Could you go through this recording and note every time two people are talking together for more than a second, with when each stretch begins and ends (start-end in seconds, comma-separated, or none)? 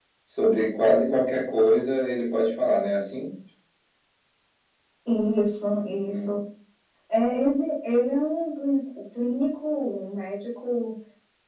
none